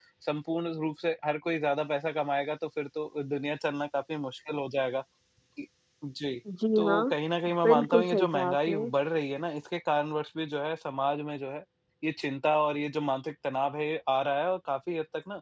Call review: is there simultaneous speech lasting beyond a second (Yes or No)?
Yes